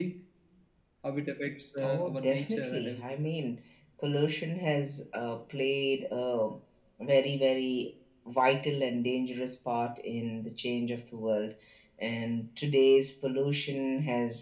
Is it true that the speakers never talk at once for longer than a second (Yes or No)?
No